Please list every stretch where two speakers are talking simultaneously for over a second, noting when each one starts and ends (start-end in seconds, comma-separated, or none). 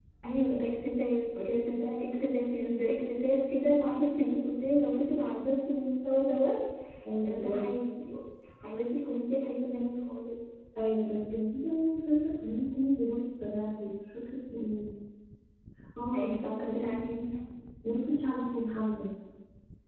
none